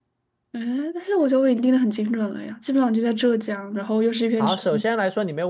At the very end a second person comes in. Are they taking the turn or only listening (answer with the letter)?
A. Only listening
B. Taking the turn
B